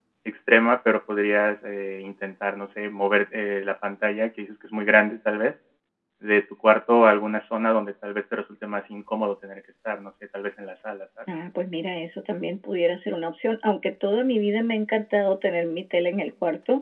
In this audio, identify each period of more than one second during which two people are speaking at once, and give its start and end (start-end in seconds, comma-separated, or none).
none